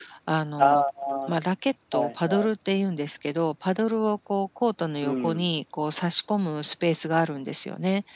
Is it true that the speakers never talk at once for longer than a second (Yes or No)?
Yes